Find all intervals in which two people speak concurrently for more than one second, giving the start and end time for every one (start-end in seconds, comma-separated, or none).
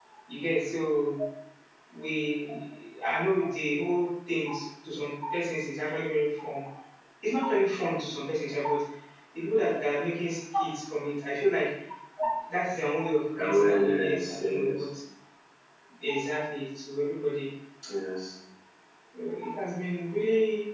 13.4-14.8